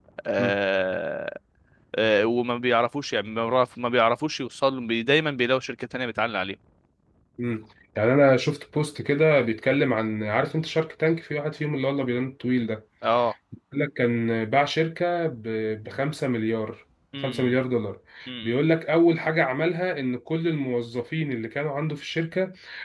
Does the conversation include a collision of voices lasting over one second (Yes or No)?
No